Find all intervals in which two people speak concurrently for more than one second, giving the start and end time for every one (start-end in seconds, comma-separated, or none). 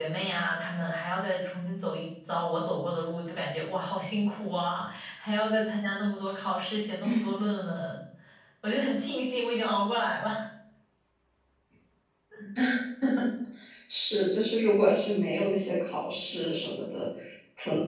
none